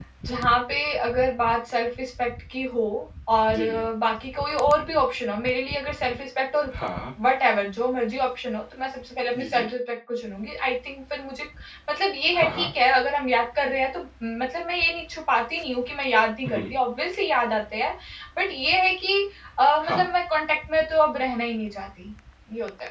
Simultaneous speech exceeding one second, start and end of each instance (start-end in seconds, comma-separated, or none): none